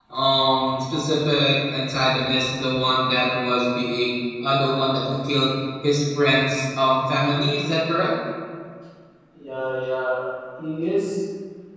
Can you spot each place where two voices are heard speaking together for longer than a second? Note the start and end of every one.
none

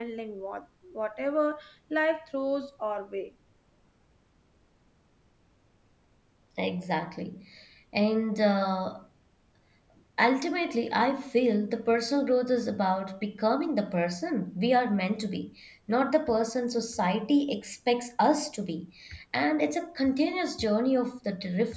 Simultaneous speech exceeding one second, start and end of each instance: none

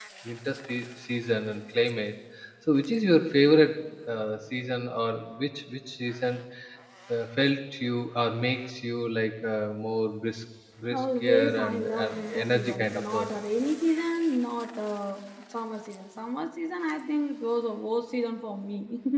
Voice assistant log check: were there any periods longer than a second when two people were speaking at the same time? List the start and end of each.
10.9-13.4

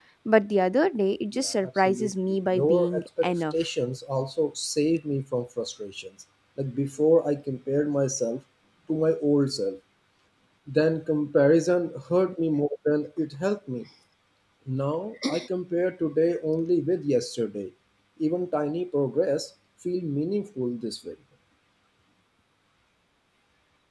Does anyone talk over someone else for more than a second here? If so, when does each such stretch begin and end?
1.3-3.5

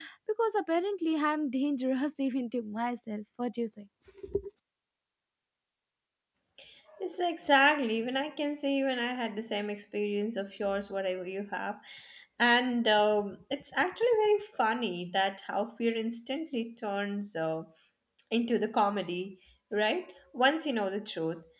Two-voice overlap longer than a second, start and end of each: none

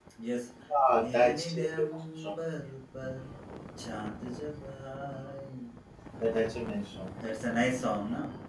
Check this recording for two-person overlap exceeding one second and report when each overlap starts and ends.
1.0-2.3

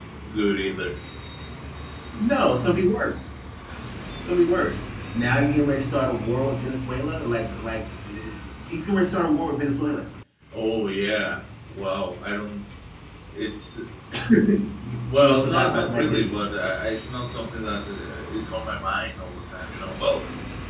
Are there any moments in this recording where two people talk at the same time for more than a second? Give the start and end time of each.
15.2-16.4

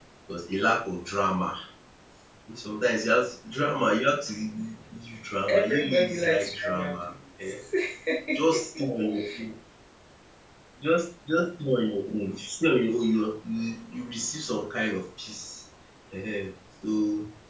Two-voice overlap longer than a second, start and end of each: 5.5-6.9

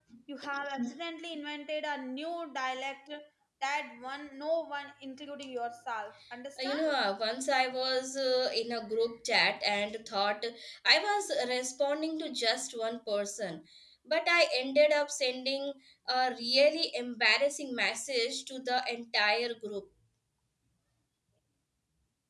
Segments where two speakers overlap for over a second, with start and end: none

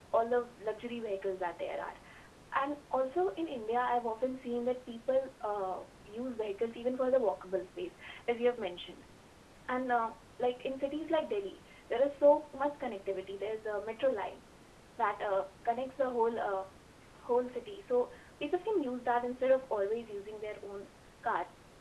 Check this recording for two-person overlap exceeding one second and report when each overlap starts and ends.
none

